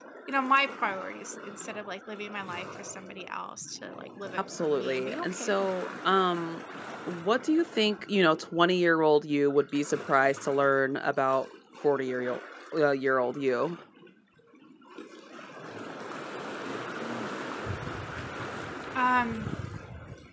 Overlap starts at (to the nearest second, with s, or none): 4 s